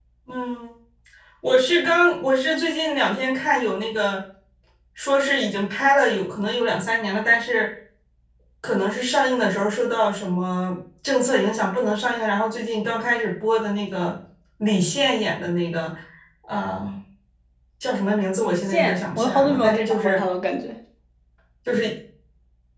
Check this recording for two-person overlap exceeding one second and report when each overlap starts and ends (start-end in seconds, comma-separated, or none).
18.4-20.2